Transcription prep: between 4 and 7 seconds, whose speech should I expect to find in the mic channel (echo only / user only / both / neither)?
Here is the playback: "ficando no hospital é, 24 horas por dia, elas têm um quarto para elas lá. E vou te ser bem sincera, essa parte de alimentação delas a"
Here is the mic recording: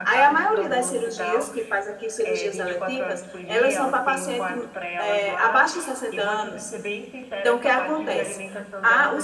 both